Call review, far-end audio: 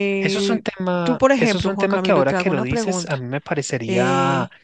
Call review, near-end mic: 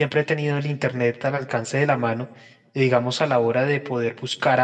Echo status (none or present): none